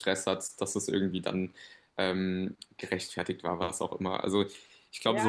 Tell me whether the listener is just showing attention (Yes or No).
No